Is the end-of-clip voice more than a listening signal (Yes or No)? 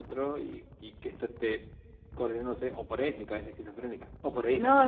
Yes